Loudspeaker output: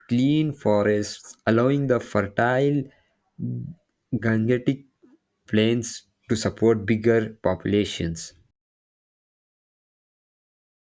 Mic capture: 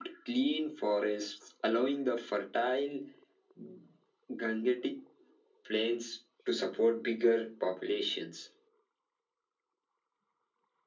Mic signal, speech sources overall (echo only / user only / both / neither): echo only